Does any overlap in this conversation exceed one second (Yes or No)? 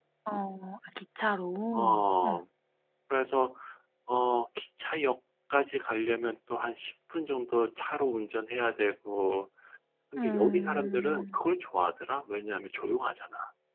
Yes